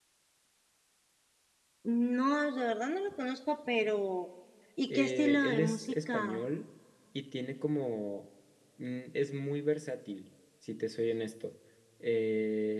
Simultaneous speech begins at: 5 s

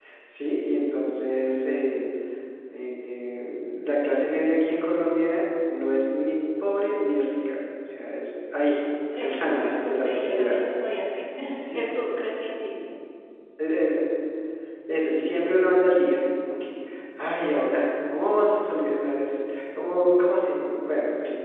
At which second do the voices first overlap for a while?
9 s

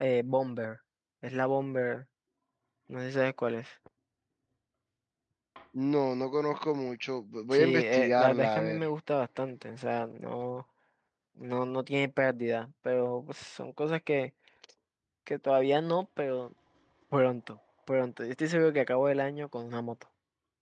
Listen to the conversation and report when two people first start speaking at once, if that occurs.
8 s

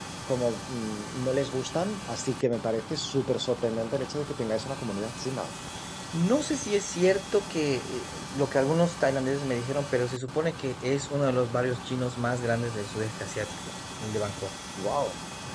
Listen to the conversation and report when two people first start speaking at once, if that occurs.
none

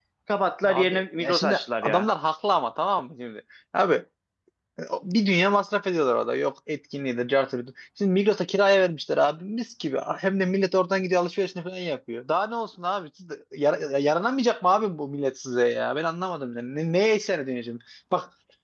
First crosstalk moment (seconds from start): 1 s

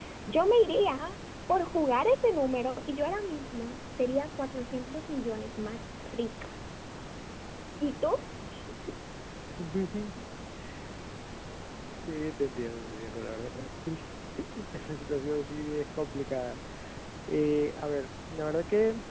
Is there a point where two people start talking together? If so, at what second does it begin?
none

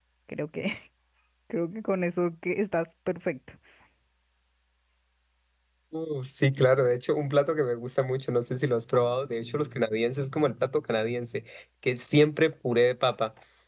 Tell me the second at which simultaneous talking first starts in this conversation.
none

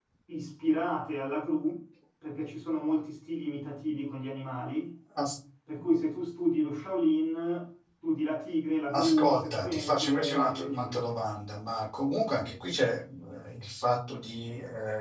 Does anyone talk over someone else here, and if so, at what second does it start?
9 s

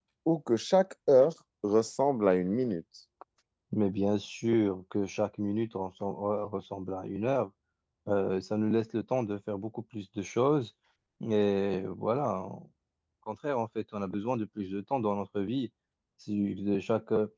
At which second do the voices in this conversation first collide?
none

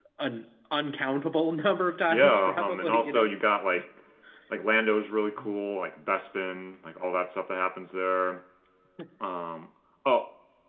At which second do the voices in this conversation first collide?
2 s

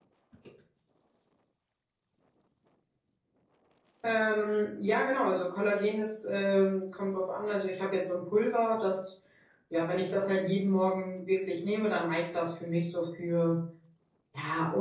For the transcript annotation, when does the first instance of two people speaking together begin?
none

